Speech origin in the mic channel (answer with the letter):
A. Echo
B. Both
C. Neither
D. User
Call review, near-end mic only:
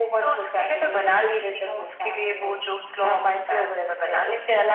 A